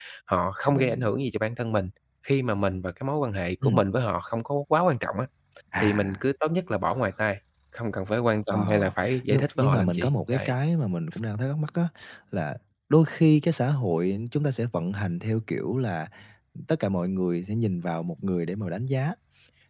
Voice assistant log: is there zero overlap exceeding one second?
No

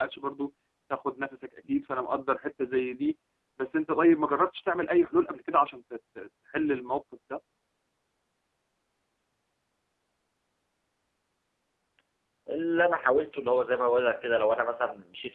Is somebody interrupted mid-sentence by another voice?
No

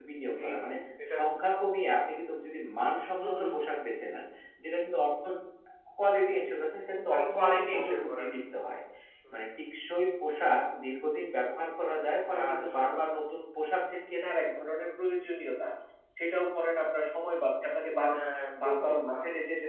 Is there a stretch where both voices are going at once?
Yes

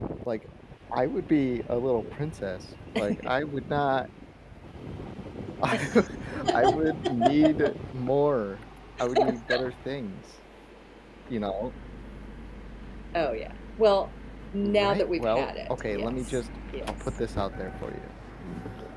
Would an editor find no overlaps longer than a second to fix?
No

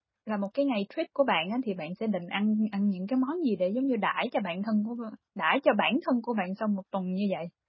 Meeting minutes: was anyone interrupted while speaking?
No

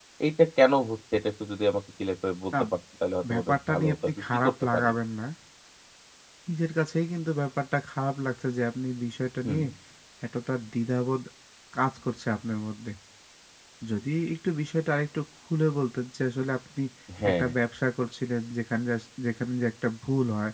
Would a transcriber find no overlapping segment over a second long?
No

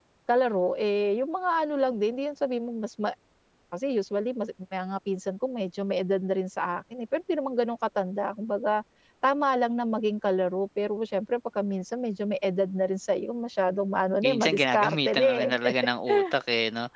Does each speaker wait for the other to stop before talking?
No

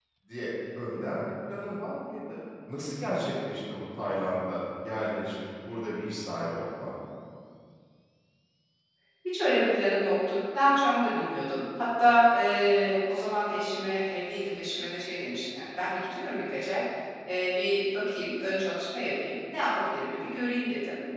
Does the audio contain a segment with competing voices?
No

